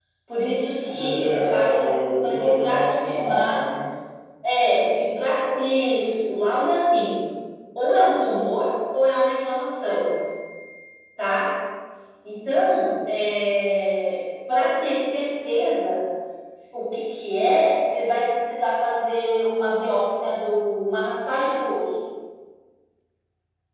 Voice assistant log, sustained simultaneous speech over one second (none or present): present